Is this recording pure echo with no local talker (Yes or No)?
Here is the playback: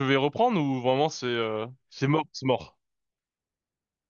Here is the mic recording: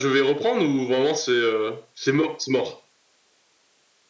Yes